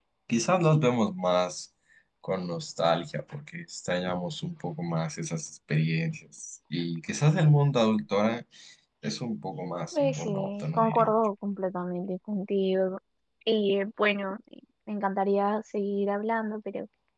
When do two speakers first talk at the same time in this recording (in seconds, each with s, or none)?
9.9 s